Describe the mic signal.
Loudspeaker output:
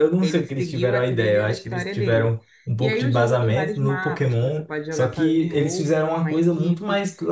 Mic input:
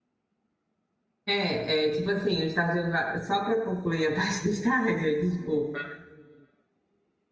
user only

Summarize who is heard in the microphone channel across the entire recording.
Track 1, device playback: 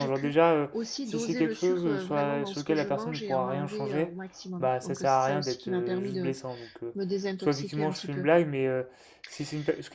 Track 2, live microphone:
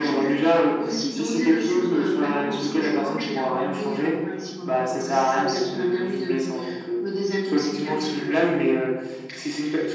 echo only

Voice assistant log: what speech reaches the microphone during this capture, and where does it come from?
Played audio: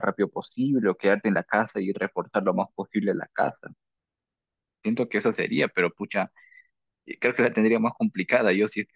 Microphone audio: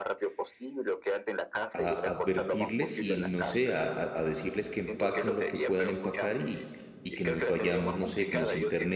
both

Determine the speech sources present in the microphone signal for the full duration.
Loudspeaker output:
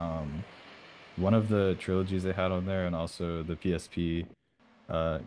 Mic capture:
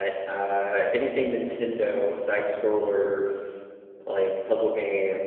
user only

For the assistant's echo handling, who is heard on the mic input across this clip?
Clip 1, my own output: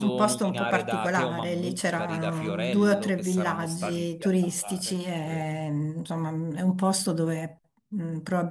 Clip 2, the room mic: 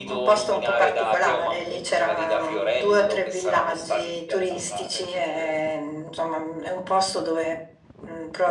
echo only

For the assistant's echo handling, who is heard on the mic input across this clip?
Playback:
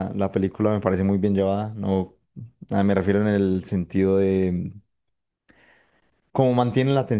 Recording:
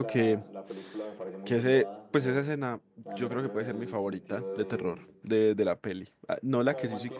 both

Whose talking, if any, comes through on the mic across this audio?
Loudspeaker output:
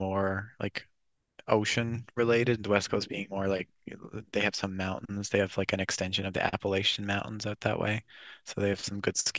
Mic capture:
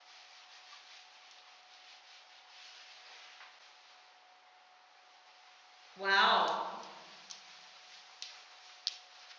user only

